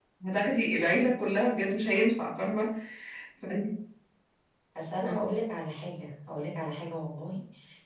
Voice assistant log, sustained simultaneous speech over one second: none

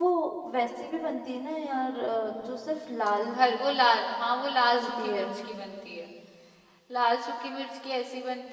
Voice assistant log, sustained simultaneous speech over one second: none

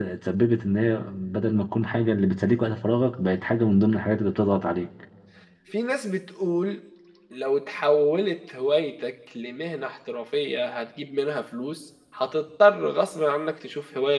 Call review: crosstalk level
none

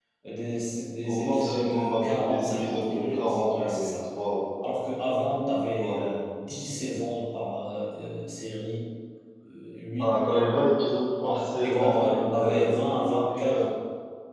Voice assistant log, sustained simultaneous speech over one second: present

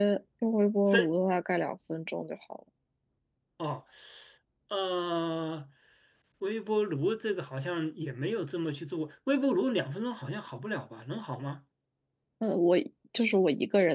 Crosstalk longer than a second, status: none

